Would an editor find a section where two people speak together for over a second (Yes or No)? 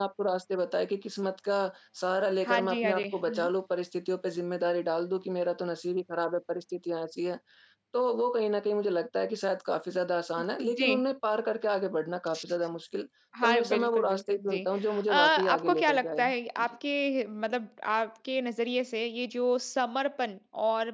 Yes